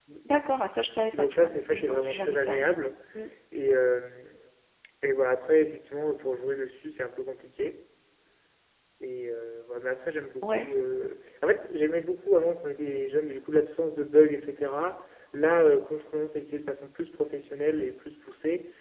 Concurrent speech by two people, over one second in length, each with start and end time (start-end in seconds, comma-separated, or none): 1.2-2.7